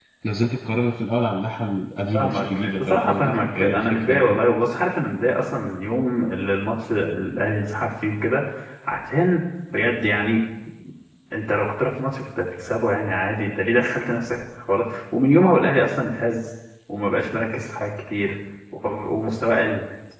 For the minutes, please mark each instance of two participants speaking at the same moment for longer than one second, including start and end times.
2.1-4.4

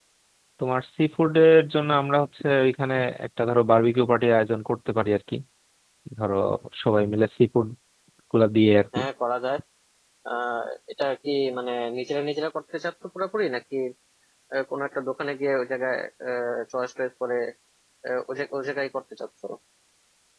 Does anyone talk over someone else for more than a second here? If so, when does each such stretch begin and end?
none

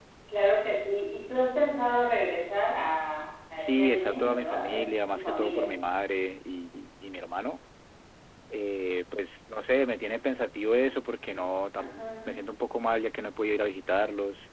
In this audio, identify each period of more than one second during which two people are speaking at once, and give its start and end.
3.5-5.7

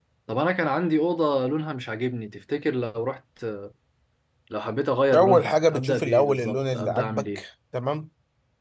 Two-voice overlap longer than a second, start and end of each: 5.1-7.4

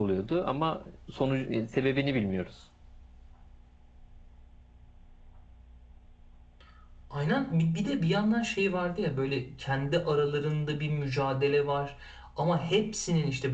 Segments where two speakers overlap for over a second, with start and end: none

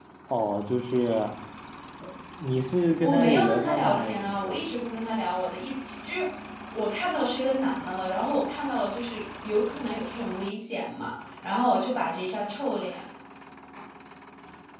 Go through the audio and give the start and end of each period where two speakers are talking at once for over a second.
3.0-4.6

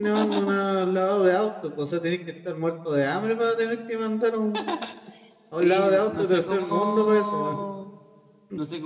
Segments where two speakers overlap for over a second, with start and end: 5.6-7.6

